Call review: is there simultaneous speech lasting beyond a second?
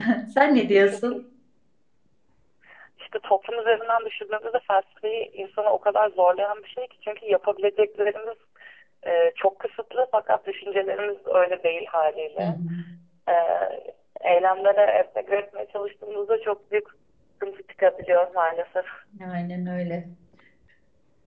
No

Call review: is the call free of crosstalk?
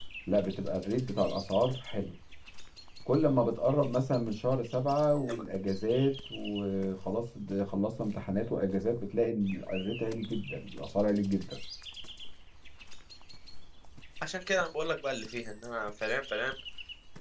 Yes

